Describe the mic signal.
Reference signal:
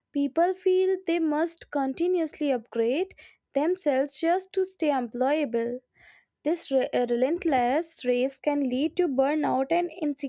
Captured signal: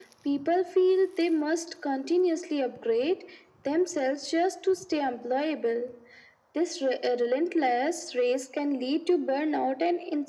echo only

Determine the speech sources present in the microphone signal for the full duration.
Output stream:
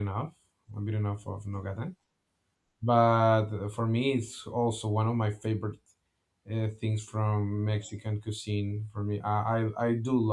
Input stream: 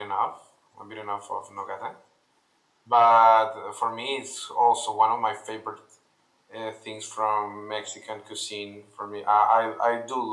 echo only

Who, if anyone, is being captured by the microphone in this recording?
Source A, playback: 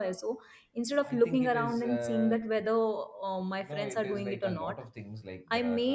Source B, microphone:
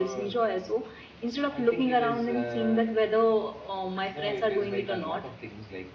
echo only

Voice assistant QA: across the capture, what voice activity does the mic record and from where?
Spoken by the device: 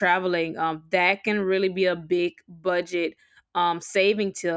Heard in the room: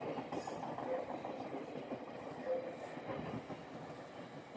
neither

